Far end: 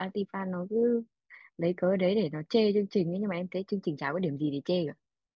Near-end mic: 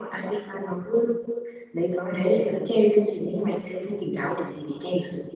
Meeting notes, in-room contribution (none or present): none